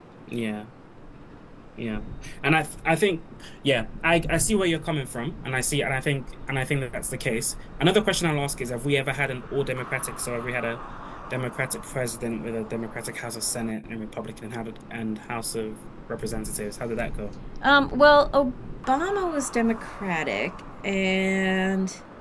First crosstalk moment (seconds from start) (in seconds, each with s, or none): none